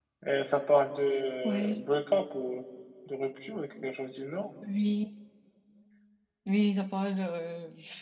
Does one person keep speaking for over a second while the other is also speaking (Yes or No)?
No